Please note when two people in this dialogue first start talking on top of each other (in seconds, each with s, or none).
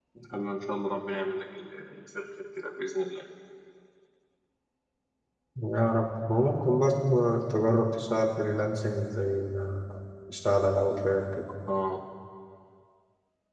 none